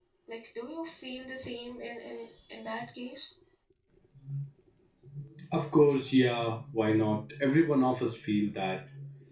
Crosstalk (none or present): none